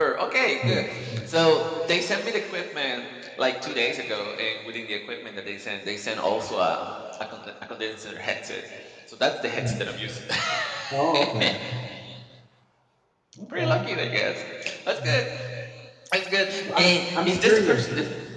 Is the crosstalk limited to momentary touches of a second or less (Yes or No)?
No